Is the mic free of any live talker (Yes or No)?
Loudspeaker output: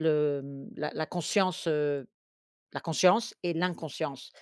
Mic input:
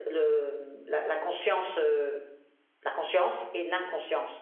Yes